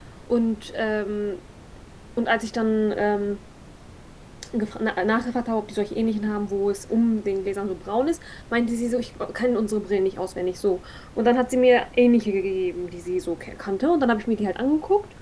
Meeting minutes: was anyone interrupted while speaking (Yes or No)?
No